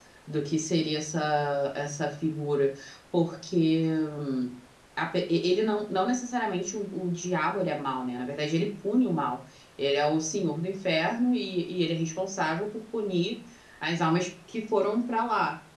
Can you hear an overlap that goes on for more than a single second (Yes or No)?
No